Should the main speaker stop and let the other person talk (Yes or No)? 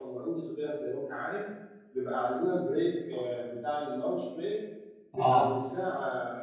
No